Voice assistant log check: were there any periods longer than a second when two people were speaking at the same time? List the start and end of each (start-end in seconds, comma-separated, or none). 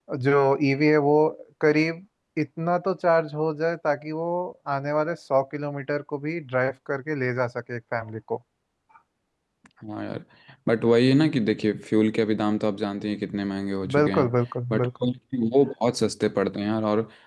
none